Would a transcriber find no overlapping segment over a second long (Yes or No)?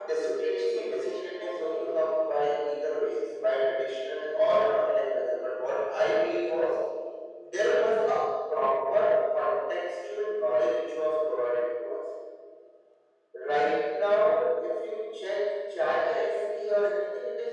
No